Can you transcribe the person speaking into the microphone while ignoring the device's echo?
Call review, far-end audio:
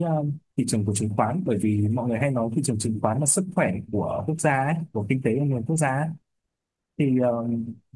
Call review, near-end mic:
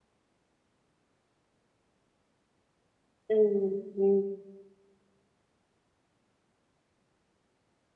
Ừ, ừ.

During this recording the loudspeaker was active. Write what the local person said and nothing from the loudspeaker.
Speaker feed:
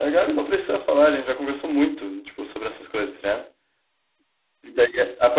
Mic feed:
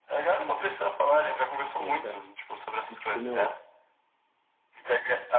boto fé. E tipo, meu,

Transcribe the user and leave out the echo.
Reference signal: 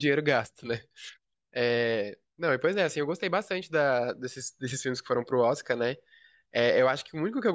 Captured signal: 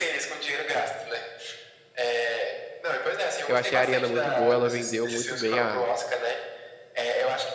Eu achei a Ariana muito boa, ela vendeu muito bem a,

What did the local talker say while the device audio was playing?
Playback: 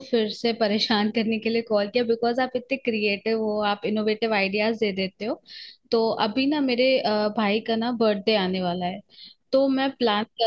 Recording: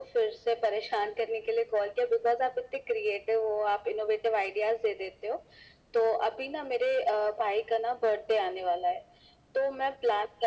none

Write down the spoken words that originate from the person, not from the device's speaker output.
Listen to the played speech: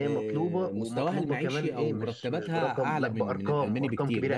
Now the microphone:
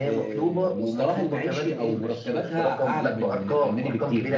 none

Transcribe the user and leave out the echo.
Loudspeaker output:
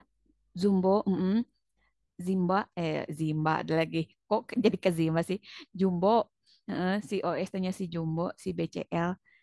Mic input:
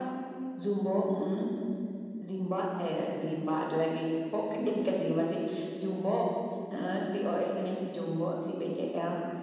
none

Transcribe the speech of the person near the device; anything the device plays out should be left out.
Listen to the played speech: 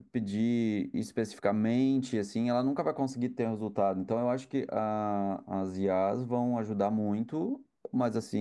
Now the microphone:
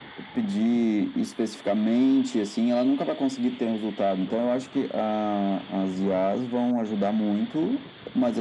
none

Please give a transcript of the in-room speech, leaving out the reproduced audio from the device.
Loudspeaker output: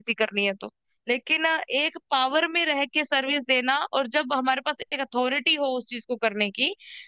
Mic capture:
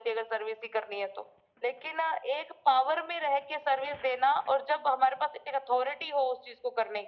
none

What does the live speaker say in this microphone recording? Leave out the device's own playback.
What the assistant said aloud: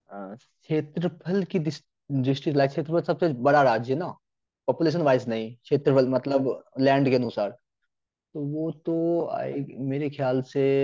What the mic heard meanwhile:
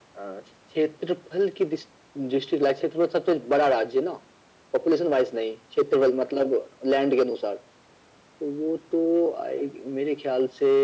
none

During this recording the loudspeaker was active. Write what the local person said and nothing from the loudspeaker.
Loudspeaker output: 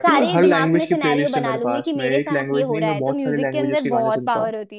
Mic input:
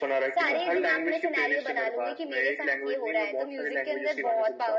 none

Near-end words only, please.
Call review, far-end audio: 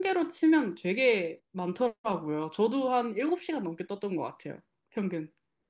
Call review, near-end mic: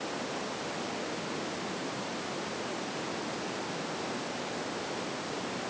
none

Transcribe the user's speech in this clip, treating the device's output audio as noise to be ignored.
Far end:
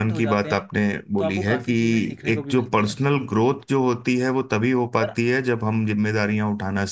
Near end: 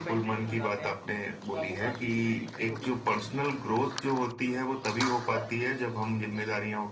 none

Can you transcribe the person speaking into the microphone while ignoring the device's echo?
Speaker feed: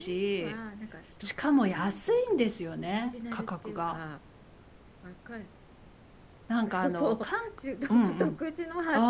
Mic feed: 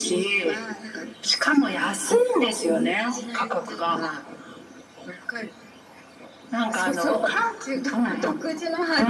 none

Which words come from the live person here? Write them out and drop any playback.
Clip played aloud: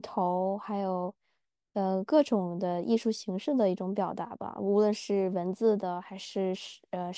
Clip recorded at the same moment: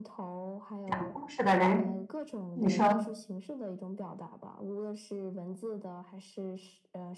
讲故事的人，你说

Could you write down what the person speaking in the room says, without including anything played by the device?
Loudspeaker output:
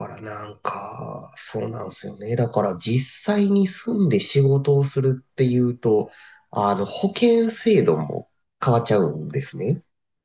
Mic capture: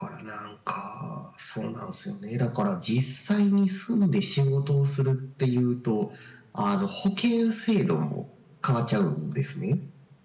none

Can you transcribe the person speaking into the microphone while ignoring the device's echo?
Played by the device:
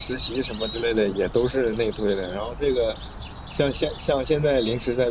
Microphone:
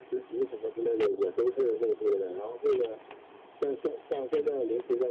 none

